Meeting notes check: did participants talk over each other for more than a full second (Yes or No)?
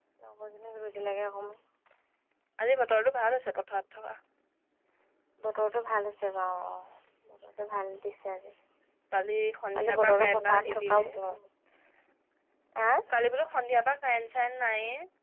Yes